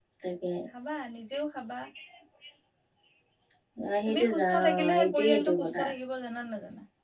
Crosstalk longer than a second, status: present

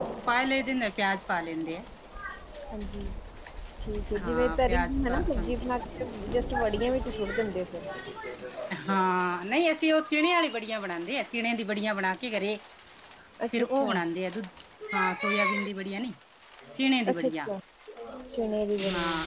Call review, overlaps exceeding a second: present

